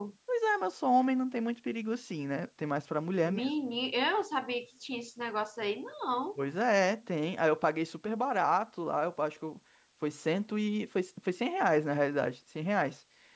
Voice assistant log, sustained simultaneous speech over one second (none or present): none